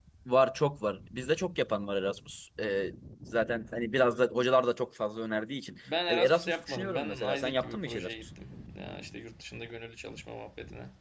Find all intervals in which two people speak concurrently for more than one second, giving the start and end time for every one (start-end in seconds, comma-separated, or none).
5.9-8.3